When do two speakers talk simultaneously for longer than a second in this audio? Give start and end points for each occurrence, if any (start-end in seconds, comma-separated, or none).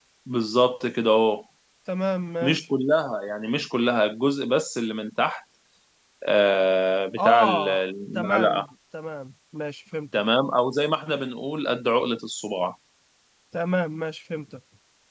7.2-8.7